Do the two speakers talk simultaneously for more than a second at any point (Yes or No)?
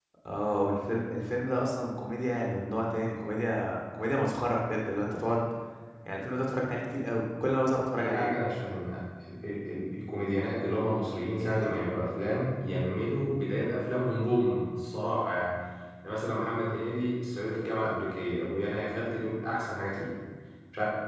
No